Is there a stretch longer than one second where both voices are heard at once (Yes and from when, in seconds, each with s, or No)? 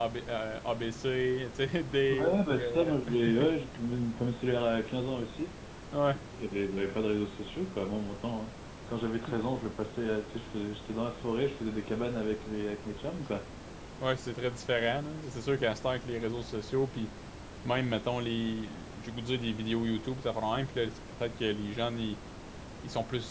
Yes, from 2.1 s